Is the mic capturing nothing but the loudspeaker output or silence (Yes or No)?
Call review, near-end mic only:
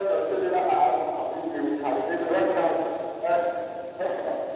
Yes